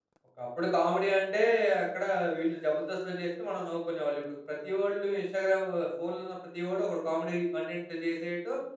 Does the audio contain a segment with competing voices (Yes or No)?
No